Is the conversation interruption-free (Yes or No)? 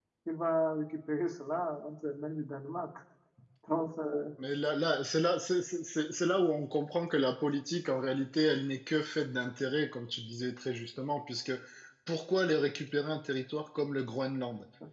Yes